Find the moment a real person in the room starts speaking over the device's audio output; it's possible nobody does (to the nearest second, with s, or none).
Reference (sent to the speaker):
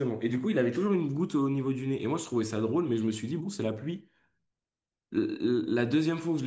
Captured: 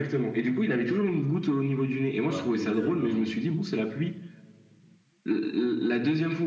2 s